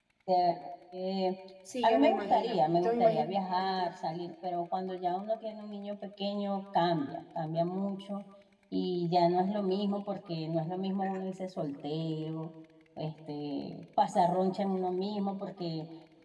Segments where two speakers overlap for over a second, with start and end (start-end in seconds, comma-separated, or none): 1.8-3.2